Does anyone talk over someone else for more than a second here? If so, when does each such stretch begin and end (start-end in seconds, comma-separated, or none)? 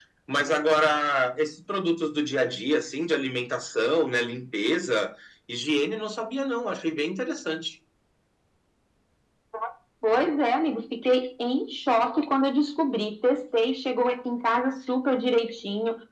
none